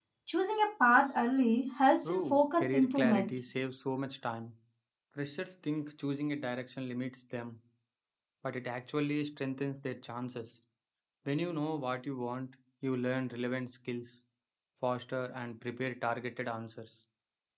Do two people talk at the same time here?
Yes, from 2.0 s

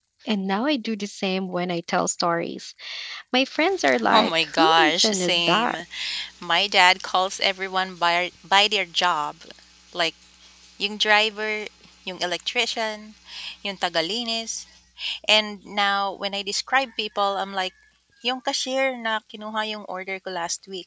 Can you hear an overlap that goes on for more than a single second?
Yes, from 4.1 s

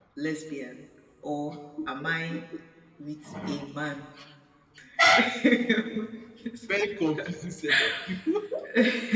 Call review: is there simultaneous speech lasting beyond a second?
No

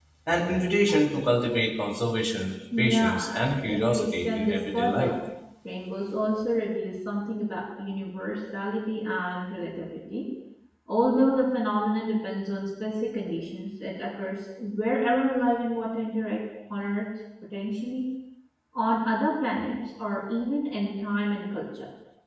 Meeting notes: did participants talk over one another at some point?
Yes, from 2.7 s

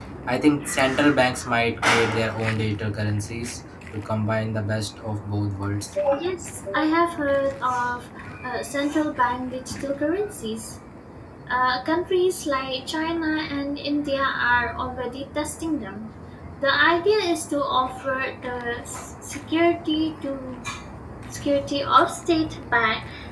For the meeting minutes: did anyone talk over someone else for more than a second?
No

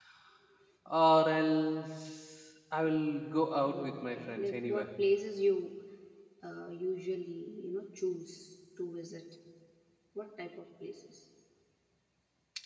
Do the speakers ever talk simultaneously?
Yes, from 3.6 s

